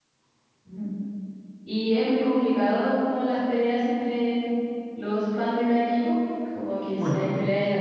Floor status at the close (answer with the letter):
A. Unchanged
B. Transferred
A